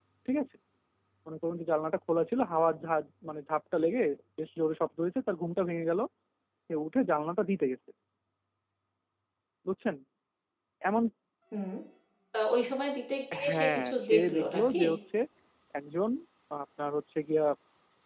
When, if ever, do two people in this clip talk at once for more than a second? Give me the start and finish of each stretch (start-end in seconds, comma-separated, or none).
13.4-14.8